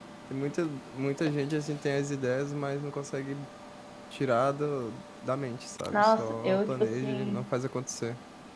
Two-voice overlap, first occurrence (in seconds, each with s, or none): 5.9 s